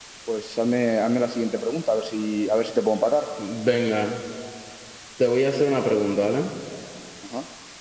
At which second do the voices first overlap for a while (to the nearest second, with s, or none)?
none